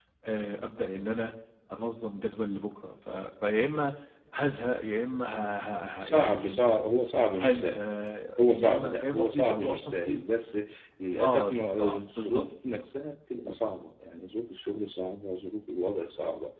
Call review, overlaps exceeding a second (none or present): present